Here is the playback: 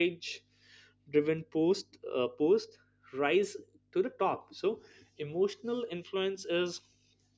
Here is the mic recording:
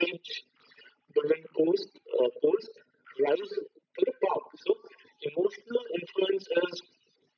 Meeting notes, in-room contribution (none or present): none